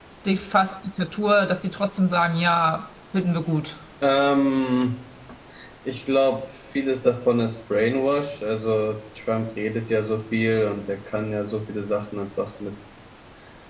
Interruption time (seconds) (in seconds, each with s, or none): none